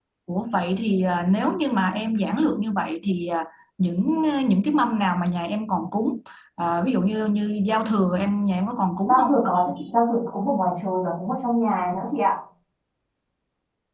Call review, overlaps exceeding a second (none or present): none